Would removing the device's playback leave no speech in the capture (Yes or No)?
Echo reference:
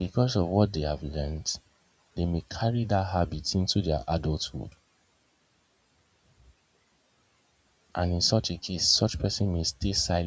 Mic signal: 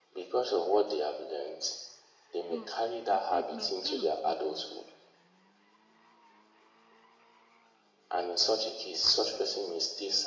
No